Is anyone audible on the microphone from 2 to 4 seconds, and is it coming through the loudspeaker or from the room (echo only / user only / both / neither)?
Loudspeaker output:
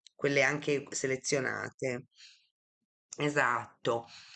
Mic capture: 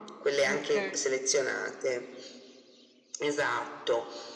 echo only